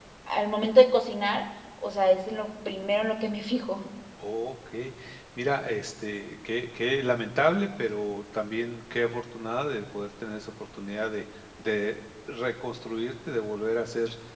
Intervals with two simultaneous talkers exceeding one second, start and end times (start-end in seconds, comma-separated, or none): none